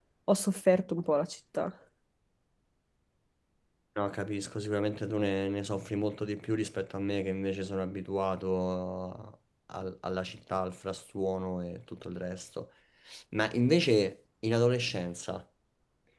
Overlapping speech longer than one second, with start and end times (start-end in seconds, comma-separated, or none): none